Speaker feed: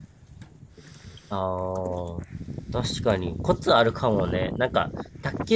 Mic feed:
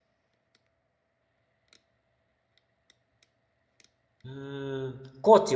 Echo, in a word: none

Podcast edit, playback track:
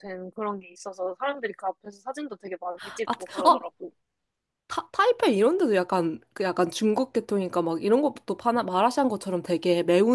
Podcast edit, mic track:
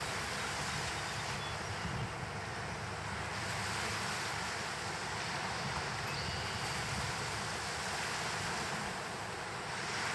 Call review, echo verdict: none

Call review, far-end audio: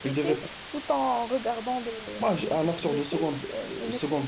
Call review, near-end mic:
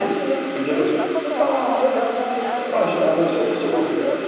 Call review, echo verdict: present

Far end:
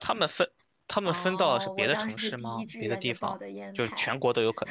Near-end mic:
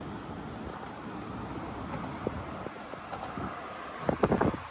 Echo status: none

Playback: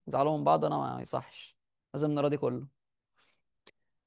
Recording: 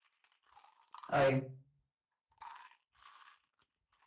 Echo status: none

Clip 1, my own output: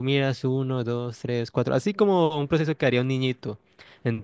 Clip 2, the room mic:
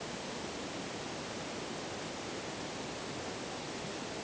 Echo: none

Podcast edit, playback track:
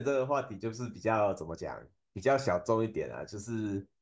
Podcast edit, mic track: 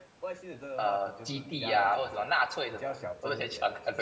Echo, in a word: present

